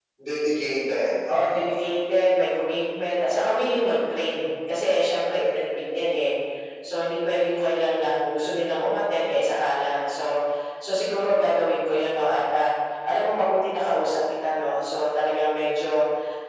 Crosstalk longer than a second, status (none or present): none